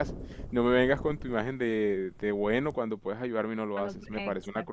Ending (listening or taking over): taking over